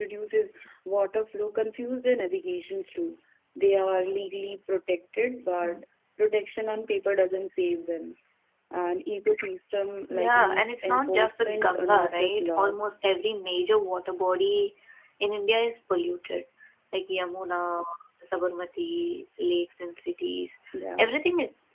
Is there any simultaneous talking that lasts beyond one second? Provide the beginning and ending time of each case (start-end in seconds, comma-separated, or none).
10.1-12.9